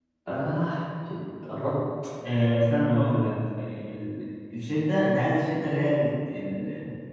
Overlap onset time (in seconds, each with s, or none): none